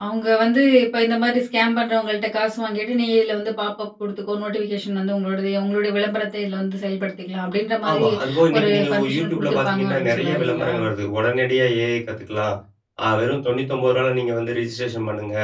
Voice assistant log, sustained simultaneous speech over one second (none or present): present